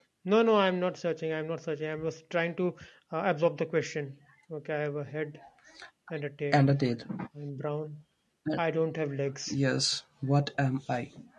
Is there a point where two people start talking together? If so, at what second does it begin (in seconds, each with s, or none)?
none